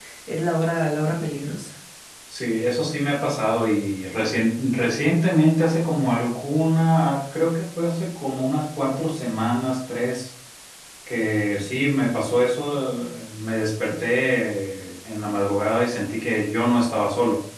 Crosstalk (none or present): none